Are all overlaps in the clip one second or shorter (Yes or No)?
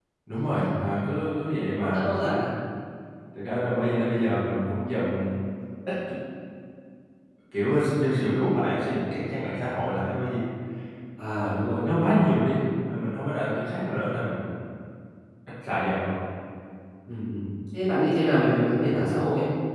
Yes